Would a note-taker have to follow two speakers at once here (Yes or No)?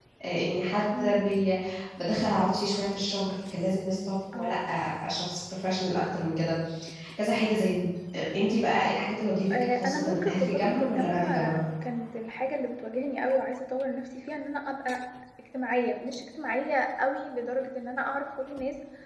Yes